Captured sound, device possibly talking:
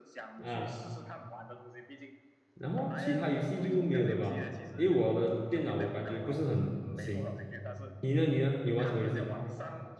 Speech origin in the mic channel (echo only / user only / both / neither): both